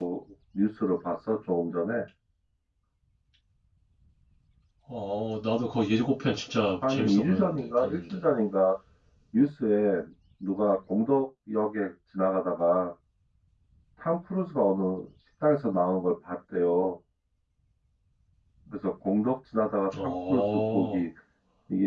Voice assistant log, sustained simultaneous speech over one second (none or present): present